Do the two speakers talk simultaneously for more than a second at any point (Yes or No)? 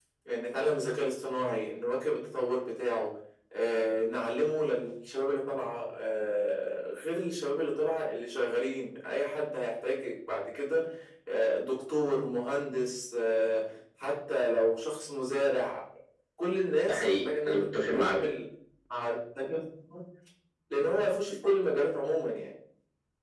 Yes